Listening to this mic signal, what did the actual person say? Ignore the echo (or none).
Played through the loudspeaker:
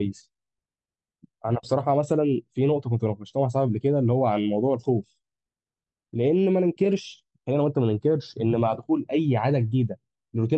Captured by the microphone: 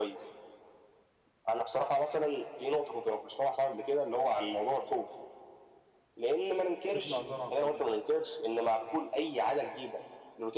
تطلع زرعة صالحة